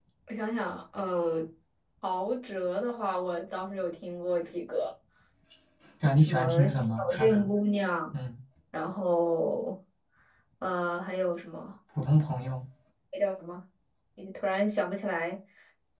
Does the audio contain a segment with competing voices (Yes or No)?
Yes